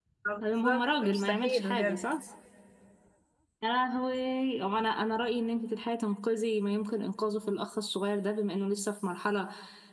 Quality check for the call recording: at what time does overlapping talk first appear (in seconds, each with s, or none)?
0.6 s